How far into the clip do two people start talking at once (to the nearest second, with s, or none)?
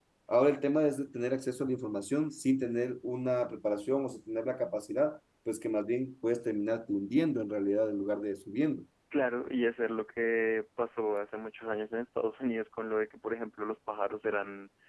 none